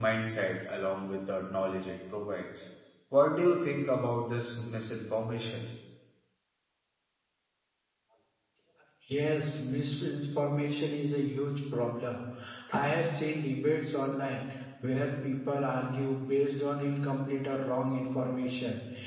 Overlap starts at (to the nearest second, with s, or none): none